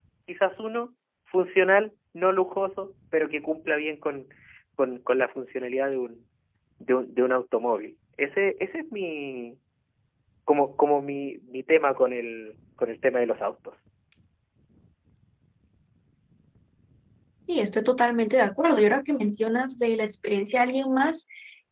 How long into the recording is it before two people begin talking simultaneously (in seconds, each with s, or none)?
none